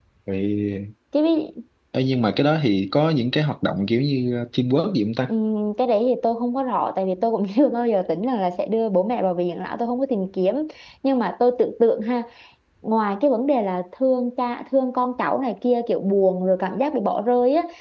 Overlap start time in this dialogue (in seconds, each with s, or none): none